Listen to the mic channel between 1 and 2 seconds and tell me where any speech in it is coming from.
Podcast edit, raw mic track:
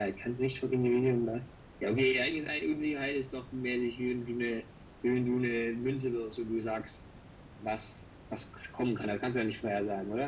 echo only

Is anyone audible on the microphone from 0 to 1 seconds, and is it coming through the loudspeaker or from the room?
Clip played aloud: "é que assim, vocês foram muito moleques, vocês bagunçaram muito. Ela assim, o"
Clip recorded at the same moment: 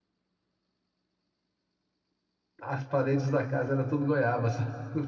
neither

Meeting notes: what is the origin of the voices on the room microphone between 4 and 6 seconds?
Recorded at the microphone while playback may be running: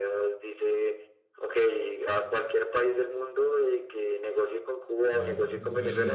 both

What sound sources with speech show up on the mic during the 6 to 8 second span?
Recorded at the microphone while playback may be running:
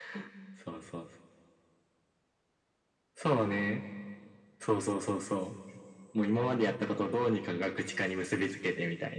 echo only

